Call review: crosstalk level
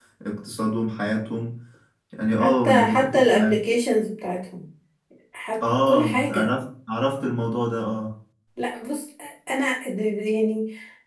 present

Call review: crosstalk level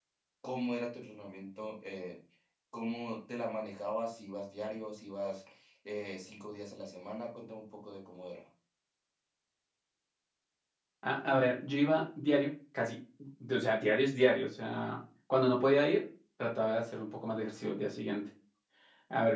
none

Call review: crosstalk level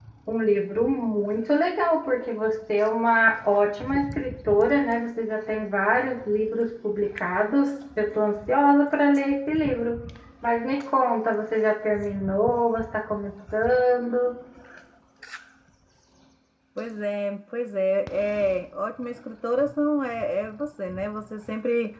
none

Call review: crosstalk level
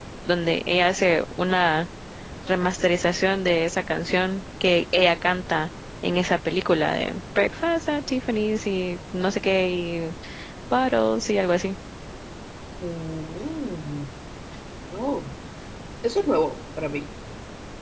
none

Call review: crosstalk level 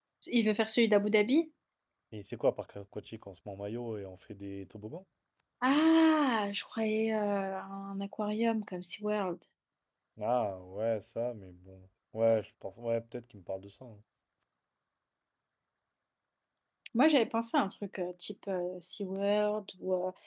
none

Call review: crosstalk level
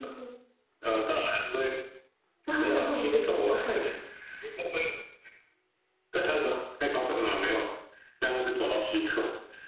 present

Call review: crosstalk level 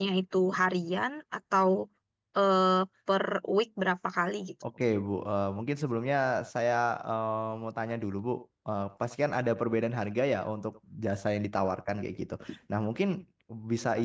none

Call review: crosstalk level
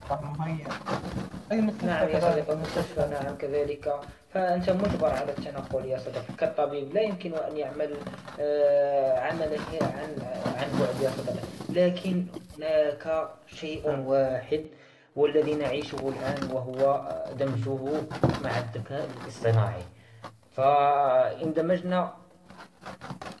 present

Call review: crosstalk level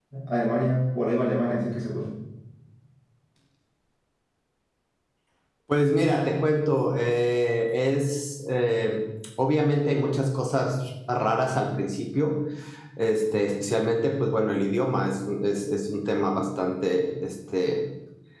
none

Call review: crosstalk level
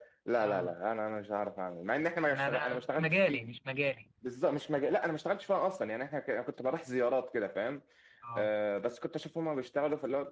present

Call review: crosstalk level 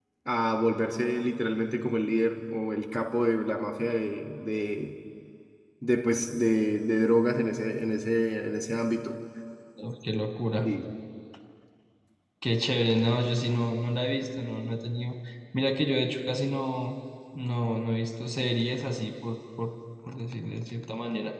none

